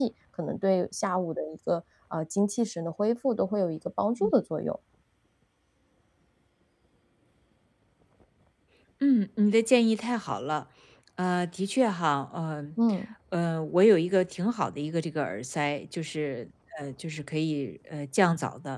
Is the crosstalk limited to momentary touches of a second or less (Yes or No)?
Yes